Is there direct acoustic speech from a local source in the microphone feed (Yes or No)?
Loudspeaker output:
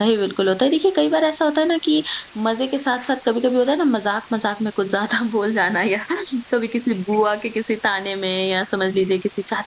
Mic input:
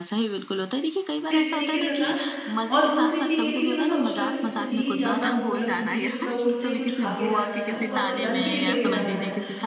Yes